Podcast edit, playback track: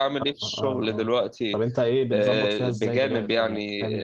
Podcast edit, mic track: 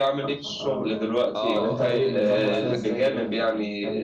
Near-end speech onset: 1.4 s

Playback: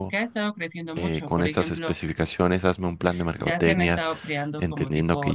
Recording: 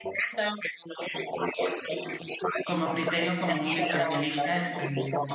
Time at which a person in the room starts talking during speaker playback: 2.6 s

